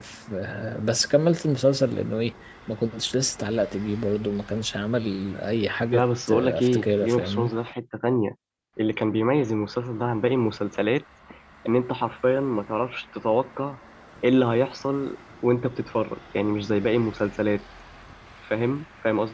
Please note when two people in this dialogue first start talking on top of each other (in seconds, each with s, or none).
5.9 s